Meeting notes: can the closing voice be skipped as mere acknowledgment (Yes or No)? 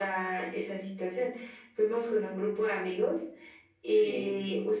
Yes